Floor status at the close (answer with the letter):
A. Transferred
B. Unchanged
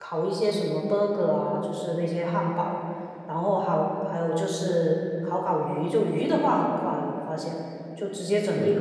B